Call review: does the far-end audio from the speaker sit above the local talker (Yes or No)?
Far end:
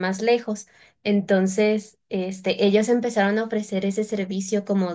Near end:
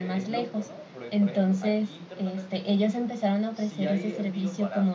Yes